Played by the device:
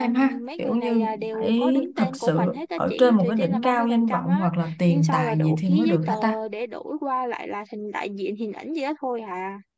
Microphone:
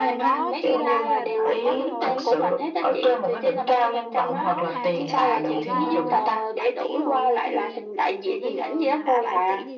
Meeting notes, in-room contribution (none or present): present